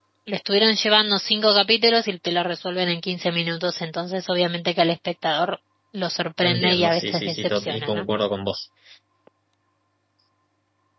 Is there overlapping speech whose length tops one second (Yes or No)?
Yes